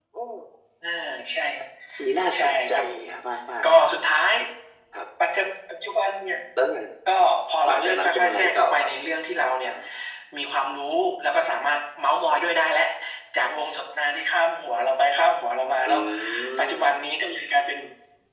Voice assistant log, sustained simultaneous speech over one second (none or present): present